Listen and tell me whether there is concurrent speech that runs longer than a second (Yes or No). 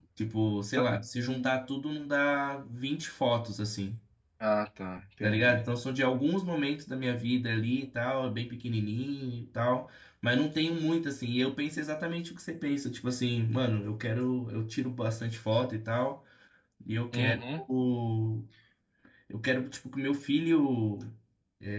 No